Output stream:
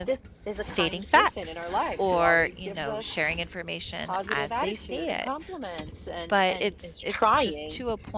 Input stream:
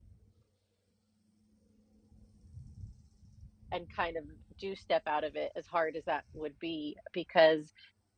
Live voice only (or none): and kind of do step out of it as hard as that would be because